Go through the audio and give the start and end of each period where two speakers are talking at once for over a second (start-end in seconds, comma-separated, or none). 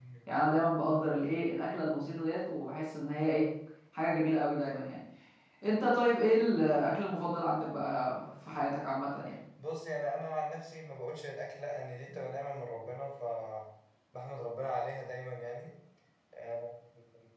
none